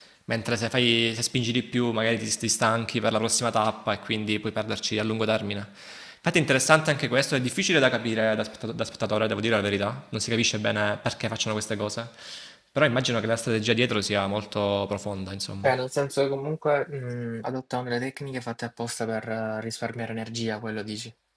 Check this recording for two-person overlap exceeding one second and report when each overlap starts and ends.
none

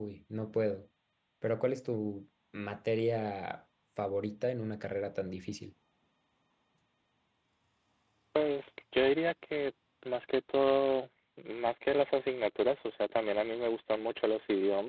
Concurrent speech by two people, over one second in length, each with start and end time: none

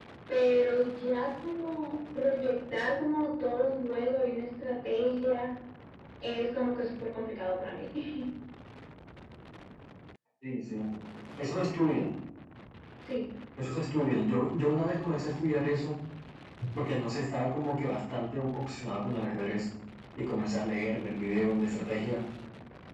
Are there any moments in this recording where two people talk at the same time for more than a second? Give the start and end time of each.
none

